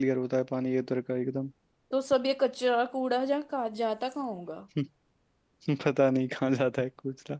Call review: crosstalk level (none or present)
none